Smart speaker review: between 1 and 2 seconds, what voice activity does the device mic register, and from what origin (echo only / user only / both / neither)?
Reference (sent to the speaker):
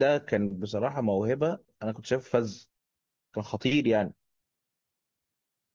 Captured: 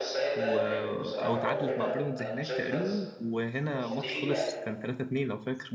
both